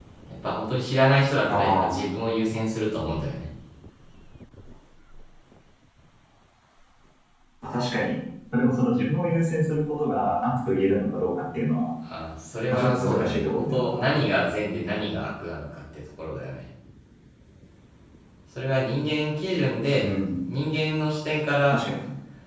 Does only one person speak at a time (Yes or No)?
No